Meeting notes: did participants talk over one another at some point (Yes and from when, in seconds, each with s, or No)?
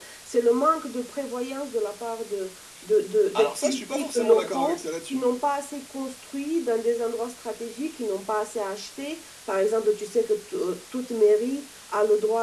Yes, from 3.3 s